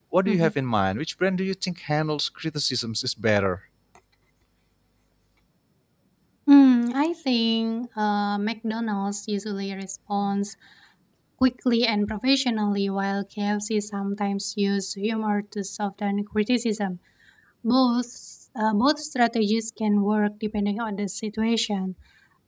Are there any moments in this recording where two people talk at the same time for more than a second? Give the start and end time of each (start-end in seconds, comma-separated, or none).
none